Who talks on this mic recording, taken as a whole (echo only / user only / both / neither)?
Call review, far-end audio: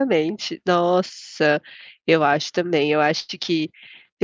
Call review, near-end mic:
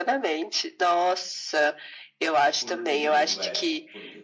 both